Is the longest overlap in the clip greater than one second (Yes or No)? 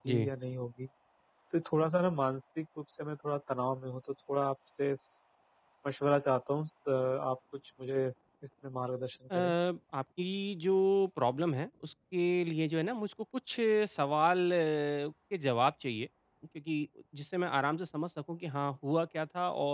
No